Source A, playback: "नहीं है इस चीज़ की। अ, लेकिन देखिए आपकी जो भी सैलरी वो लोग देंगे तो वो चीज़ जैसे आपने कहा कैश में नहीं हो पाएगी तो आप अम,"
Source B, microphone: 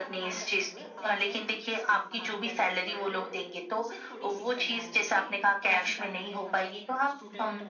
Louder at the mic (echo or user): echo